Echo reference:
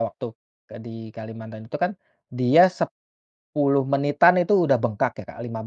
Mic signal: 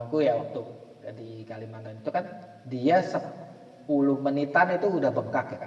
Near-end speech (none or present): none